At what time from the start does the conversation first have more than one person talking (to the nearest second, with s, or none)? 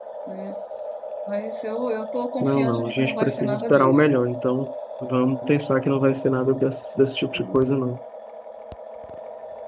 2 s